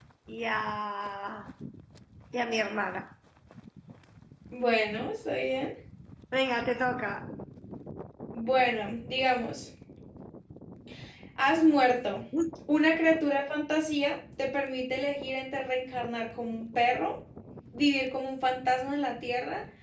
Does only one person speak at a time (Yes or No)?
Yes